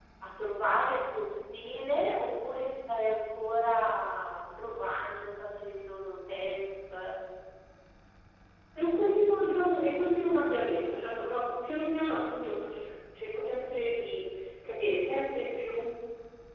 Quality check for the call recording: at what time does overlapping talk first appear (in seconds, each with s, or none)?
none